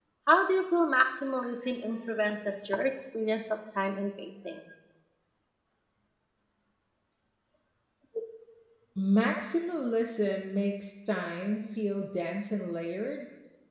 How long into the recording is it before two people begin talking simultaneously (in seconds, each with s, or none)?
none